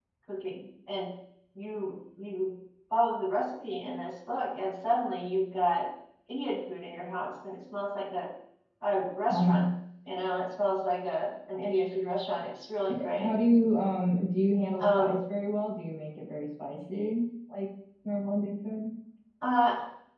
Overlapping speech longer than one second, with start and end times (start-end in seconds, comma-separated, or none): none